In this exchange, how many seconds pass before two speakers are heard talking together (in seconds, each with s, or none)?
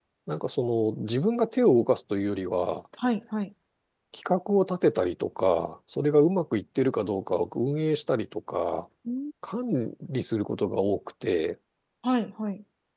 none